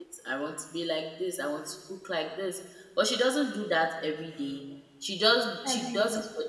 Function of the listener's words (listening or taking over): listening